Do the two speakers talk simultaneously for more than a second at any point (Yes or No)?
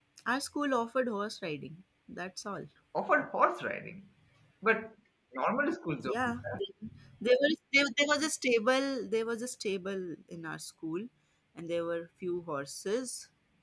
No